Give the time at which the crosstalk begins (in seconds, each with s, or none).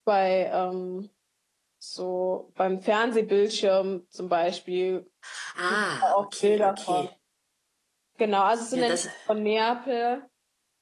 5.7 s